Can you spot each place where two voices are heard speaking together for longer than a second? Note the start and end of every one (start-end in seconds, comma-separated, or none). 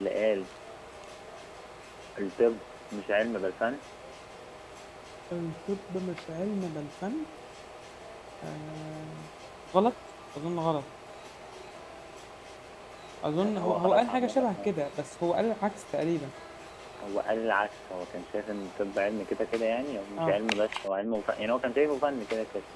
13.4-14.7